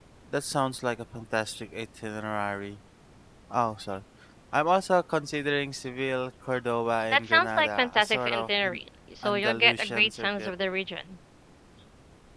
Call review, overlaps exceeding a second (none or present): present